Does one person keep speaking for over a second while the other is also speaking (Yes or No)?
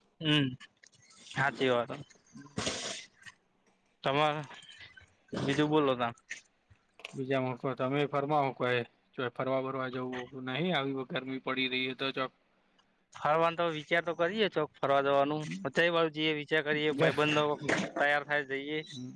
No